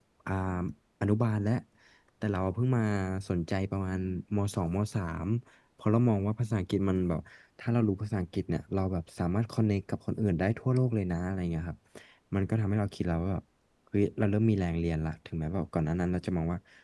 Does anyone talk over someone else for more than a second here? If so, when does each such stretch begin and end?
none

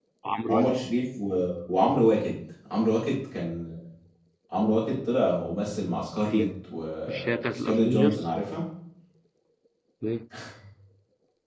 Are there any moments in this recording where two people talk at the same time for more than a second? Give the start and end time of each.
7.1-8.3

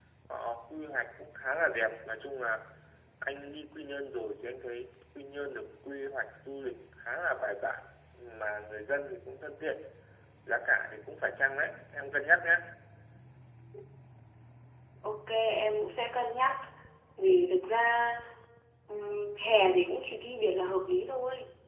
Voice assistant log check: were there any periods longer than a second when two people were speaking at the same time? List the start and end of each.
none

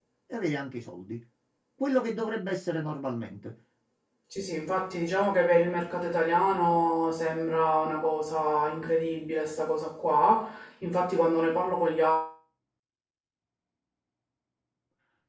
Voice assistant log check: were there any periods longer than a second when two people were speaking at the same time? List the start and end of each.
none

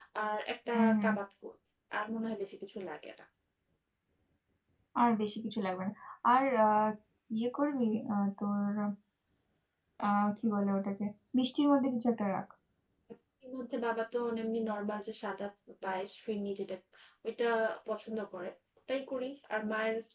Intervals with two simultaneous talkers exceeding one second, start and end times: none

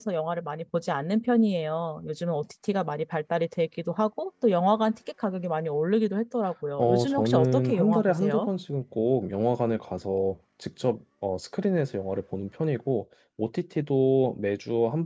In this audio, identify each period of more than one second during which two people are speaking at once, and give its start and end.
6.8-8.5

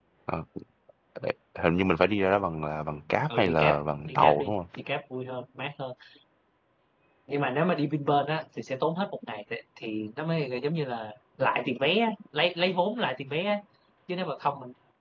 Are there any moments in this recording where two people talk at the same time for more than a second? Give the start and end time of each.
3.2-4.5

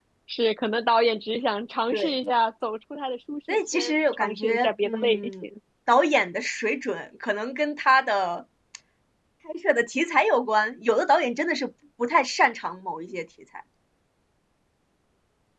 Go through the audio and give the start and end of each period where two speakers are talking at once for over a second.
3.7-5.4

